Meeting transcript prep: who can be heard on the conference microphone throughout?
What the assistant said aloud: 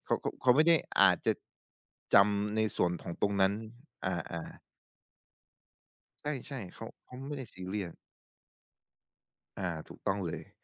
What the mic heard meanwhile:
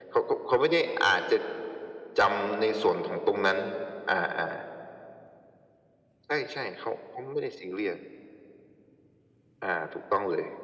echo only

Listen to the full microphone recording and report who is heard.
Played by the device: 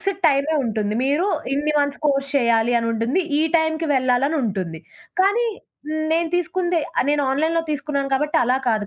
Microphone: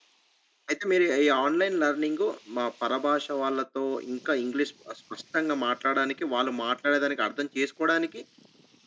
user only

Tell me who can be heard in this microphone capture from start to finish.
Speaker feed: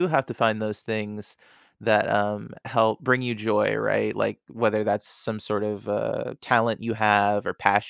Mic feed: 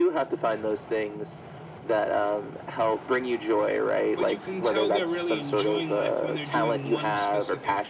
both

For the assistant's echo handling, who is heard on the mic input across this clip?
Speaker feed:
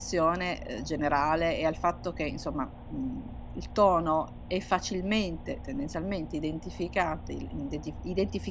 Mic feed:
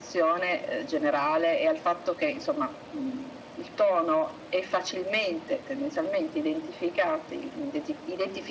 echo only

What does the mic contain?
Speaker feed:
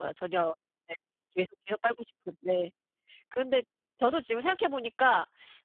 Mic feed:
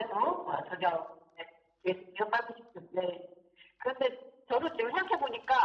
echo only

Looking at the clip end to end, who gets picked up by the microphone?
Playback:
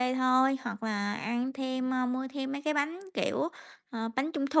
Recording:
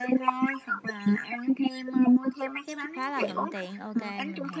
both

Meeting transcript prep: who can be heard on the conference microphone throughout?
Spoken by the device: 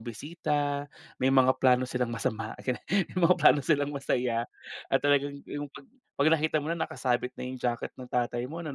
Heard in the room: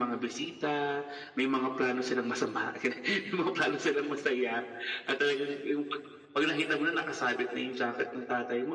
echo only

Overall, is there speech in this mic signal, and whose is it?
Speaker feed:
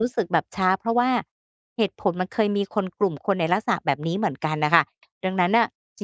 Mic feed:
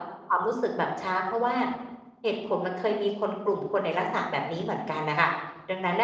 echo only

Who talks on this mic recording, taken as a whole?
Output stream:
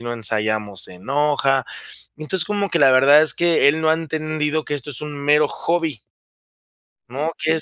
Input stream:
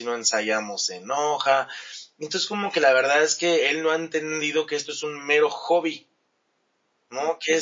echo only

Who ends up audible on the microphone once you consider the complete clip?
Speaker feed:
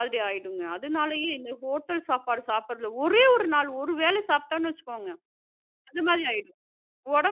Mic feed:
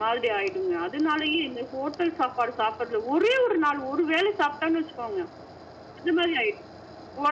echo only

